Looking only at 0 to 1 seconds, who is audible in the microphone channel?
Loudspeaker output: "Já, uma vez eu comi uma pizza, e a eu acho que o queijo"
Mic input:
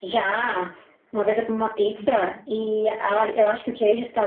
echo only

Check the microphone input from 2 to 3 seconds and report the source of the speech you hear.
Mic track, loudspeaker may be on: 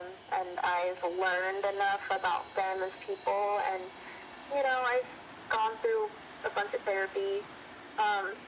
echo only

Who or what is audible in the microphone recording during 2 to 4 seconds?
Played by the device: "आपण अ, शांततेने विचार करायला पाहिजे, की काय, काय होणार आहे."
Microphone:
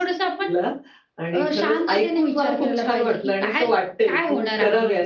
both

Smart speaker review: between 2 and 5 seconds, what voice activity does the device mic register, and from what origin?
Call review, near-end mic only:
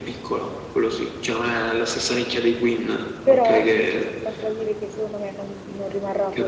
both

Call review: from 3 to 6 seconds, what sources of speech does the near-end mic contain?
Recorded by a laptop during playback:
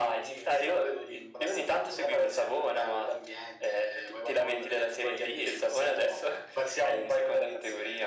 echo only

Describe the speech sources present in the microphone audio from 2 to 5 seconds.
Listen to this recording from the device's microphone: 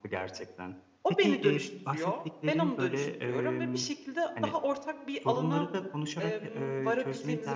both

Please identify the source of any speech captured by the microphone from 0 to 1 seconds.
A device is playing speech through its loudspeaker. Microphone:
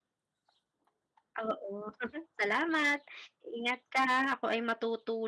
neither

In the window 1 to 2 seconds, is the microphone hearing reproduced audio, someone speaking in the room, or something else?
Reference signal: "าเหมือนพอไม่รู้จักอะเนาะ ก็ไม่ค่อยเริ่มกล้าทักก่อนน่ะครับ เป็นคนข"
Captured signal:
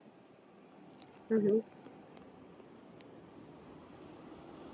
user only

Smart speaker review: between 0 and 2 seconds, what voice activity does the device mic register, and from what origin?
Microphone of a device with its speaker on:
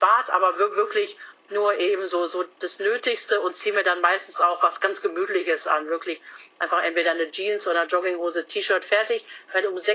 echo only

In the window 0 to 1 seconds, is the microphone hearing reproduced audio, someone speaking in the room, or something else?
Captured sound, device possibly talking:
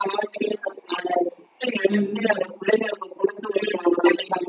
echo only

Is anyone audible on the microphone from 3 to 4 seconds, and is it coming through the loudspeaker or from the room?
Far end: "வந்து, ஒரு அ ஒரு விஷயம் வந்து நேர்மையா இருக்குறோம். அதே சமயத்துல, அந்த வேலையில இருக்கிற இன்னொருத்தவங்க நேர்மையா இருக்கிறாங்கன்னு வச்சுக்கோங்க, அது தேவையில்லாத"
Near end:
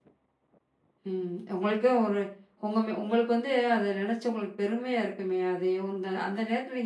user only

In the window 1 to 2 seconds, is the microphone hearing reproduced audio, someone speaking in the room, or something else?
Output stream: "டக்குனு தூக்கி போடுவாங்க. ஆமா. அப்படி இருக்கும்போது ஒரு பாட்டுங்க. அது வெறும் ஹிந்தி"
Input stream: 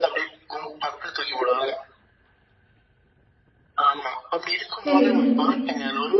echo only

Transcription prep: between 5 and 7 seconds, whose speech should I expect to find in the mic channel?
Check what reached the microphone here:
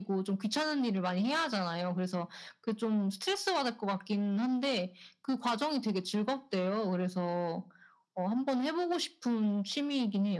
echo only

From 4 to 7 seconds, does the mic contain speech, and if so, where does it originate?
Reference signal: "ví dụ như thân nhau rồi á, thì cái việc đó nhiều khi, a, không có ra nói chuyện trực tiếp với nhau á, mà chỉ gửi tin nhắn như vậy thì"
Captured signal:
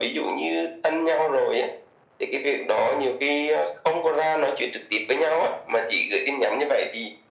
echo only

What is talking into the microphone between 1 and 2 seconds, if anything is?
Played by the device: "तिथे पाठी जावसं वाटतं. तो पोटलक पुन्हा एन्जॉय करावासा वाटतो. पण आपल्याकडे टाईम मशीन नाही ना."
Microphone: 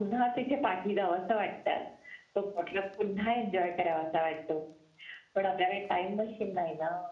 echo only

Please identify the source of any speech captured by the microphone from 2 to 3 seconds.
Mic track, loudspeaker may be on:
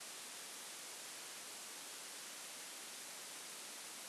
neither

